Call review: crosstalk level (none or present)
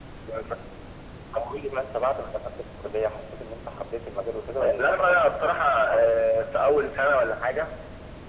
present